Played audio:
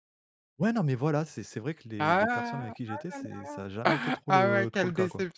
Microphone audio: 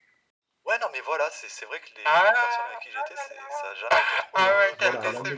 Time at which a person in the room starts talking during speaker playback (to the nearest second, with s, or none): 4 s